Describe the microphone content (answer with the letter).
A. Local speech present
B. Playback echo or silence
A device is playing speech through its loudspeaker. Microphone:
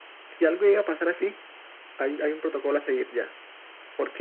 B